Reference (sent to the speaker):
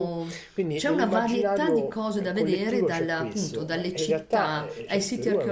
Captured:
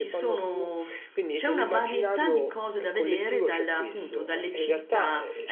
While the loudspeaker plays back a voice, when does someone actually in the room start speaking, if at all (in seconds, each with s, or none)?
none